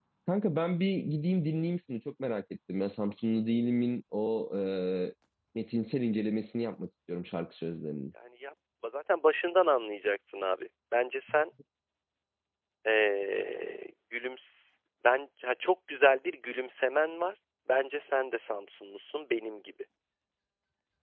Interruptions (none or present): none